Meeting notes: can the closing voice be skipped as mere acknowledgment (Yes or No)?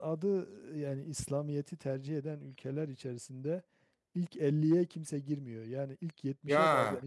Yes